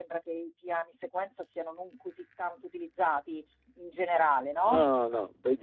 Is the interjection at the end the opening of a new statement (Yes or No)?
Yes